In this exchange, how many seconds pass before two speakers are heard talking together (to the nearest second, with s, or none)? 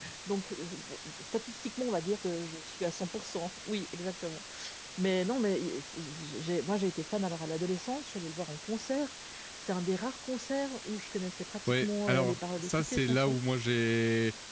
12 s